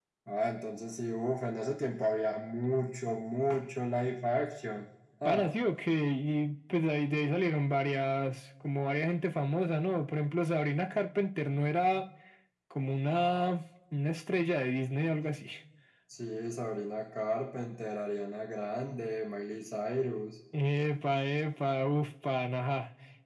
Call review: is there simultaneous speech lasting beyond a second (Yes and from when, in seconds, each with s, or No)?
No